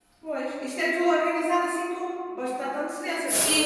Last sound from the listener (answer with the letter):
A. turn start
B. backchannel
A